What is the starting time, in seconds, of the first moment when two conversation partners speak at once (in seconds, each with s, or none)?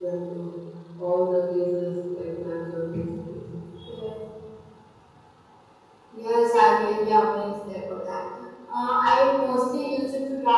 none